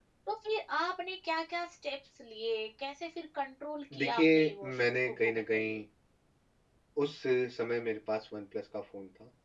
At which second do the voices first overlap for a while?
3.9 s

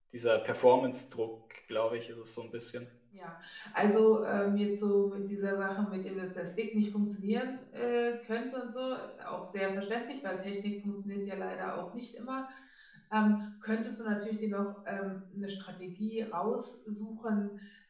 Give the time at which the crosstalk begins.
none

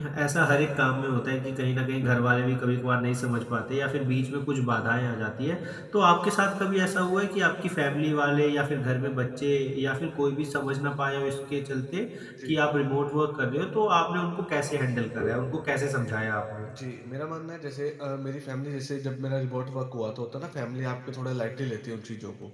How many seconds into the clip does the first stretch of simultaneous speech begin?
none

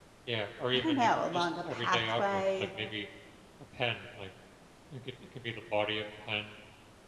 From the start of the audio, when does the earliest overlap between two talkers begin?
0.7 s

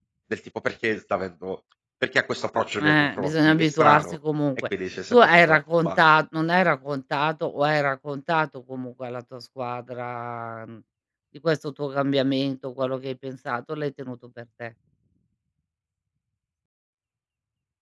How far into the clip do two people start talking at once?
2.8 s

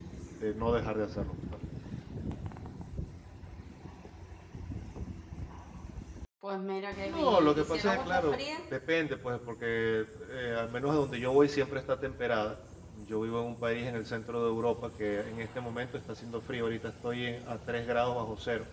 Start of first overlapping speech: 7.0 s

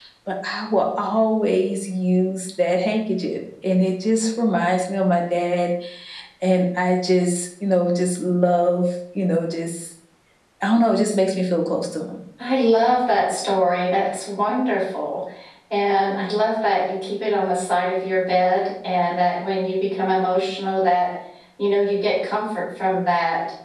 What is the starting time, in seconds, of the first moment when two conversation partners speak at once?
none

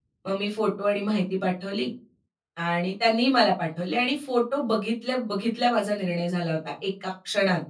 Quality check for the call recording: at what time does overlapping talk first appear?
none

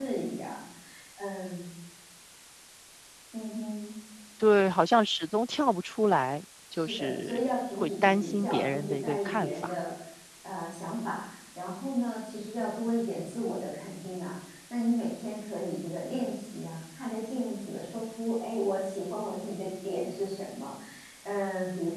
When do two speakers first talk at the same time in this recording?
6.7 s

